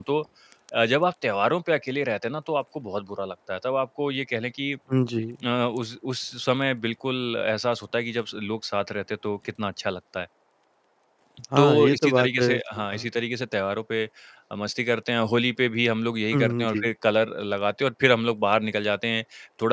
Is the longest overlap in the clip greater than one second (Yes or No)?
Yes